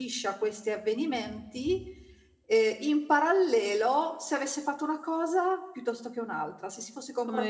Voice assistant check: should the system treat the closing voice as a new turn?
No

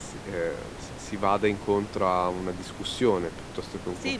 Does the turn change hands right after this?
Yes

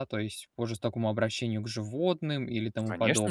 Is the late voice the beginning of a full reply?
Yes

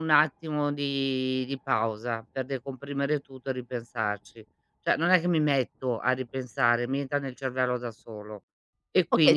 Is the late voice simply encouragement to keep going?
No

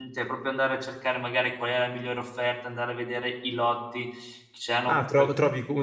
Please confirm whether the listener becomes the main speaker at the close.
Yes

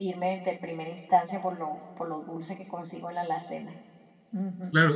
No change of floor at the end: No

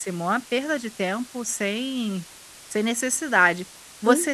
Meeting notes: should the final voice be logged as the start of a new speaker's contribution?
No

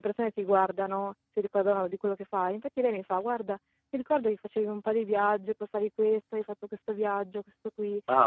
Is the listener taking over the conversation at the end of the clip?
No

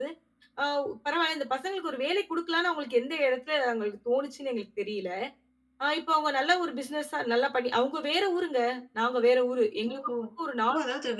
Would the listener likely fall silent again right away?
No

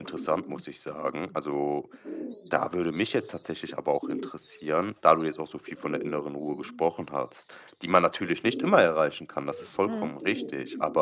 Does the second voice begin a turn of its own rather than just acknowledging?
No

